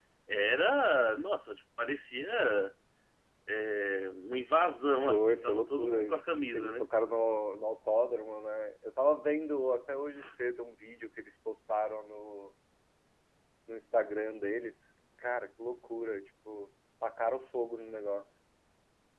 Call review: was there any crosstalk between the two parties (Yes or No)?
Yes